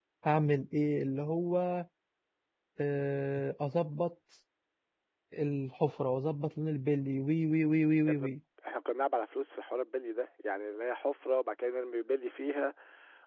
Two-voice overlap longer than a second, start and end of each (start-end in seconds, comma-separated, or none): none